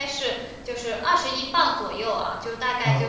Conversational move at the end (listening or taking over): listening